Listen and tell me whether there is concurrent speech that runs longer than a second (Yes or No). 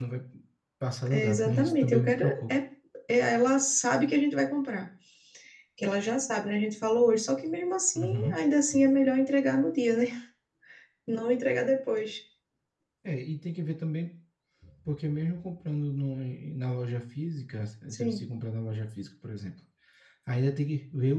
Yes